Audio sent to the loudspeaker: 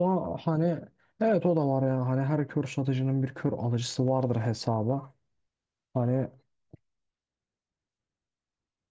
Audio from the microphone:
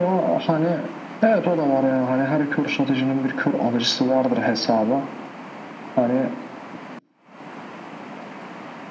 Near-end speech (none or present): none